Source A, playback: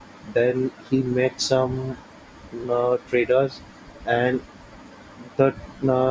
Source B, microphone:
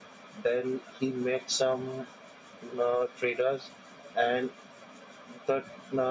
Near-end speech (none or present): none